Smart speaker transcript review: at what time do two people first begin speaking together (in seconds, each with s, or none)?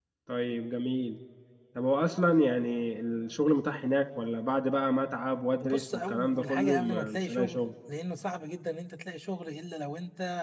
5.6 s